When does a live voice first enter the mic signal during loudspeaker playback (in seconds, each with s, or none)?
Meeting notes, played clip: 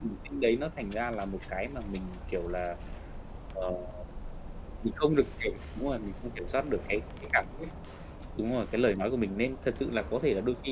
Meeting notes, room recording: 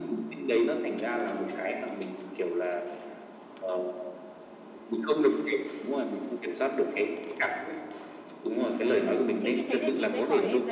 9.4 s